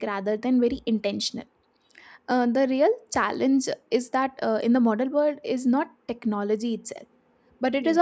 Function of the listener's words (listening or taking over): listening